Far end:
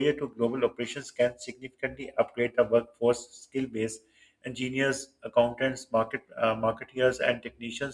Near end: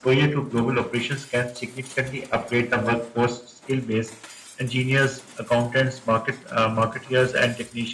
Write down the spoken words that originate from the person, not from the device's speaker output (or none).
none